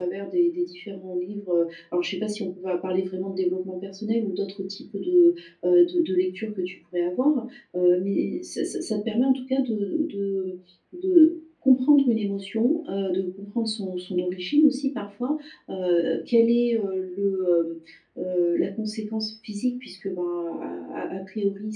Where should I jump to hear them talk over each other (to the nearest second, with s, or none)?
none